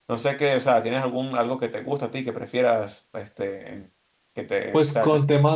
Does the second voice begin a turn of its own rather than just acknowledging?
Yes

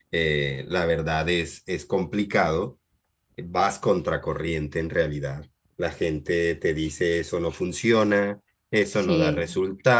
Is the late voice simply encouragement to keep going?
Yes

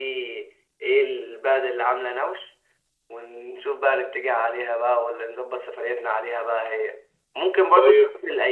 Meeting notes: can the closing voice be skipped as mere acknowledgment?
Yes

